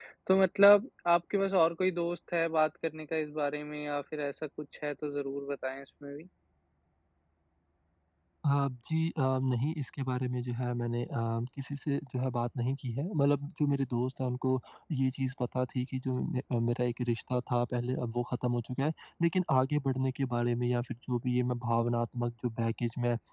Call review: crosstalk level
none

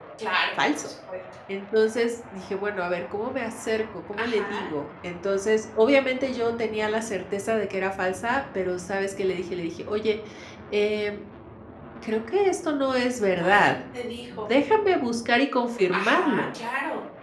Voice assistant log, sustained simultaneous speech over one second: none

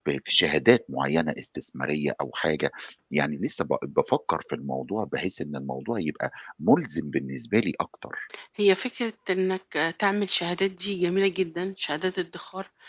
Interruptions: none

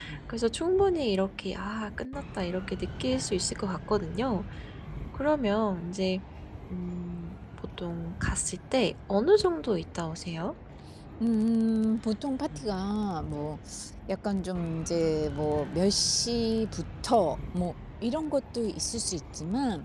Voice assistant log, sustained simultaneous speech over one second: none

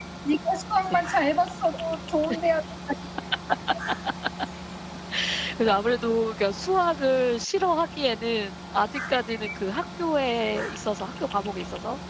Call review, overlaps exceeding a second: none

